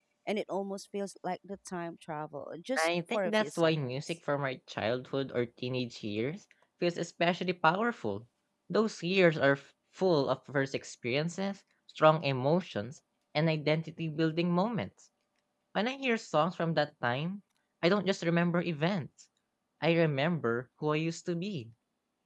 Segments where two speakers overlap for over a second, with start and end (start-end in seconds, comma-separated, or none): 2.8-4.2